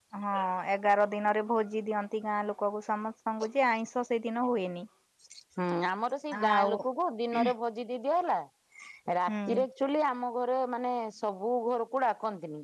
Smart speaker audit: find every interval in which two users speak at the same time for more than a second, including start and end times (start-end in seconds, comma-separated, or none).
none